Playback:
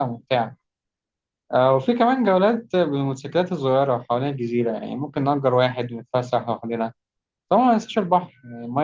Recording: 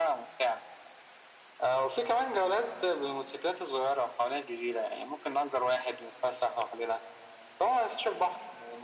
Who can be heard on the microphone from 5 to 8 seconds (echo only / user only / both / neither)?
echo only